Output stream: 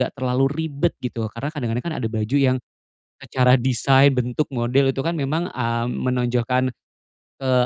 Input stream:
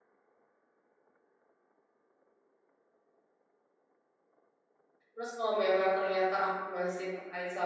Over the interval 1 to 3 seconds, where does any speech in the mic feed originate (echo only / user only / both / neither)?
neither